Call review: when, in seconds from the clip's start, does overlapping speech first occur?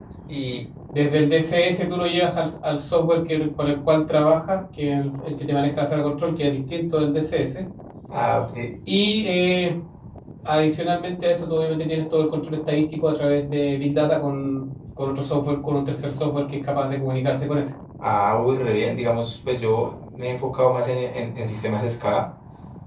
none

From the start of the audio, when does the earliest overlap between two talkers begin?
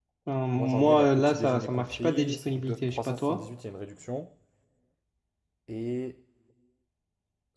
1 s

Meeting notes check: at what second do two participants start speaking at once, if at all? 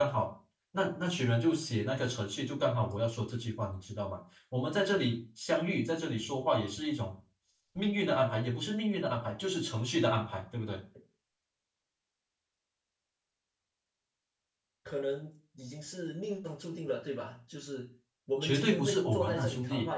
18 s

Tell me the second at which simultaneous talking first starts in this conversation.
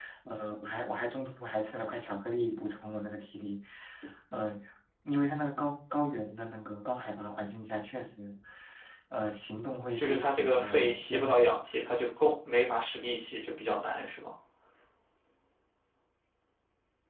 10 s

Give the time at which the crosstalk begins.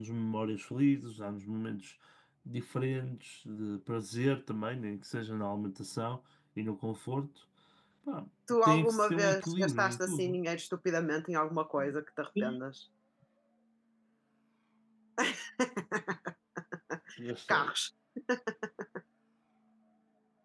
9 s

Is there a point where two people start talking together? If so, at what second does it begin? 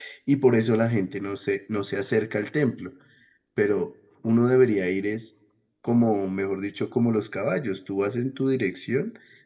none

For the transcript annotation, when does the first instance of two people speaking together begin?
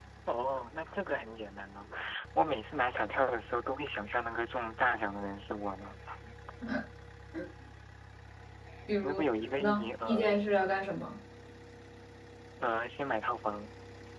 9 s

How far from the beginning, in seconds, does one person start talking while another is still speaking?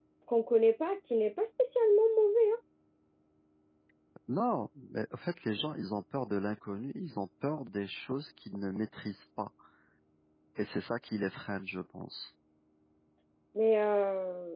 none

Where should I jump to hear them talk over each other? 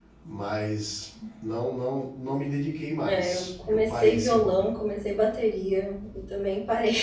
3 s

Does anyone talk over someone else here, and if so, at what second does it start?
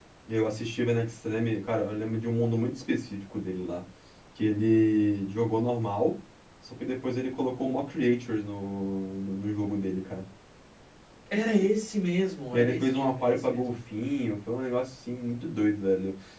13 s

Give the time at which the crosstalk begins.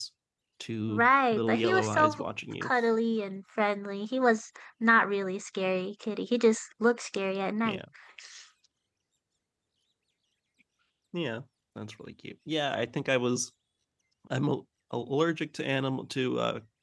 1 s

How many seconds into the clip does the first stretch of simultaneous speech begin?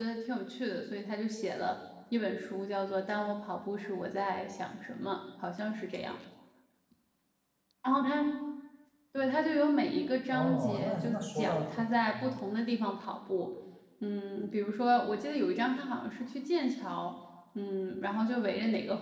10 s

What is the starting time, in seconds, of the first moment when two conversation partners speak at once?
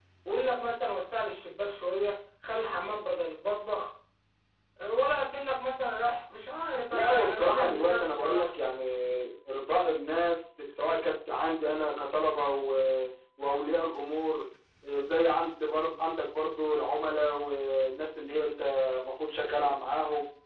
7 s

